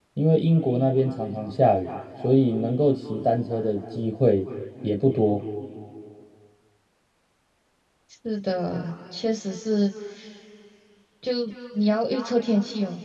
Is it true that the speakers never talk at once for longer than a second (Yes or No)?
Yes